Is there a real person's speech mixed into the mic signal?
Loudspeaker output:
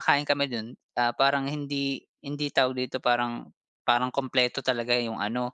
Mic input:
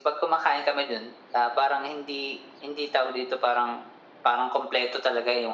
No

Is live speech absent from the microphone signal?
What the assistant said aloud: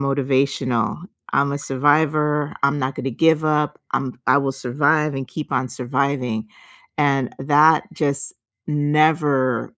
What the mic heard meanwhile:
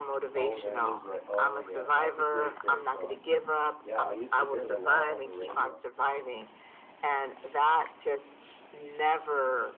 No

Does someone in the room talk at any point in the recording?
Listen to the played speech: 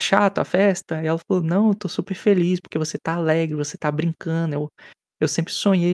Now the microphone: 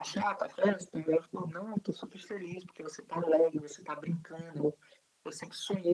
No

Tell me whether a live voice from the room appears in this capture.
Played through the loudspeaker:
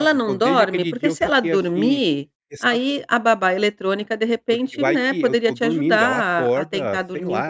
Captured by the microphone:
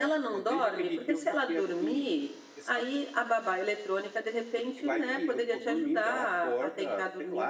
No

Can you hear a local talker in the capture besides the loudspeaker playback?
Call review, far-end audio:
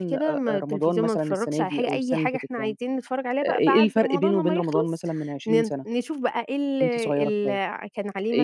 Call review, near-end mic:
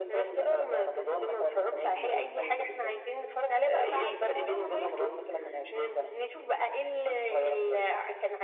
No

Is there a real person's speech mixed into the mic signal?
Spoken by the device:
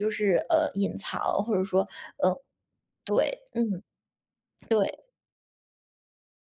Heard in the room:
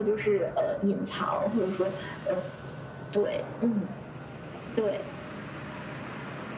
No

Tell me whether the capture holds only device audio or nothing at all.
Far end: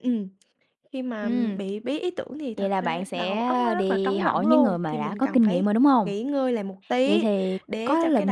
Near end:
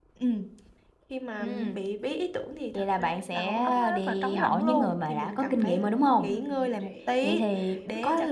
No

